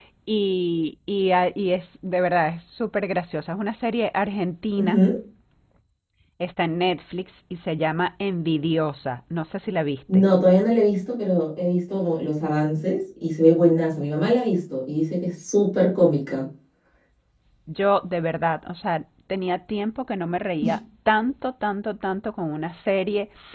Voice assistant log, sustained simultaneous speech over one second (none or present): none